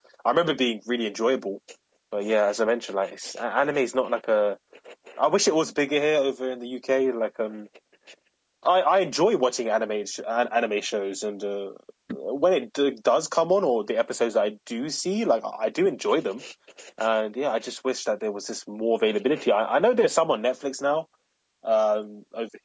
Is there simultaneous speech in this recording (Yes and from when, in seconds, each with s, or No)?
No